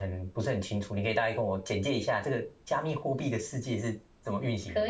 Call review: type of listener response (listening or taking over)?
taking over